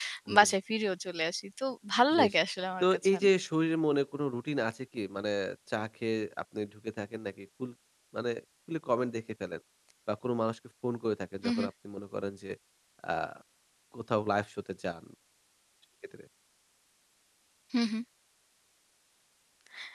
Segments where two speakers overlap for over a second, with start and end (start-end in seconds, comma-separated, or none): none